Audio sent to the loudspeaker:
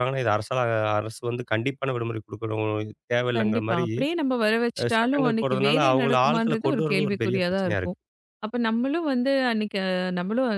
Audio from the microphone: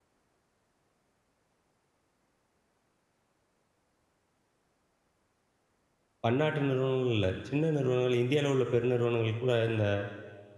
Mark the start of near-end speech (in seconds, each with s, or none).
6.2 s